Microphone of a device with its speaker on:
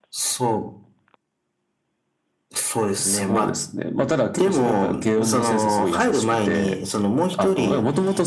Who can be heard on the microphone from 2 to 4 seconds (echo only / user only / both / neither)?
echo only